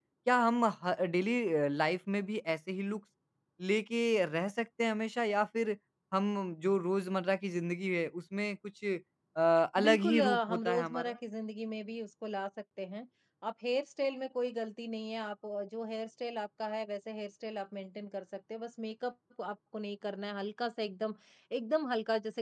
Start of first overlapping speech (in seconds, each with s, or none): 9.8 s